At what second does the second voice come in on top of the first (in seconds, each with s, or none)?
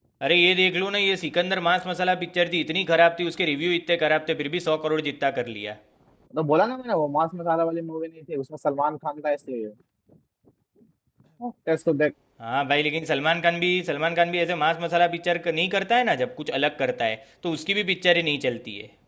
none